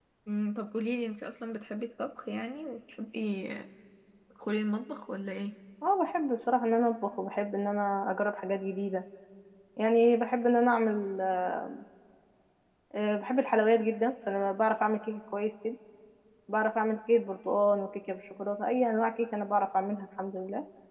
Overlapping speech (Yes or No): No